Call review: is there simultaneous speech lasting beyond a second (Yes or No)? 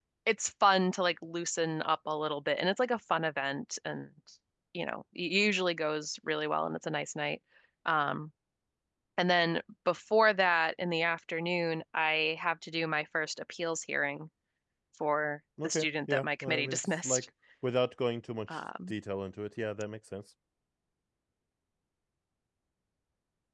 Yes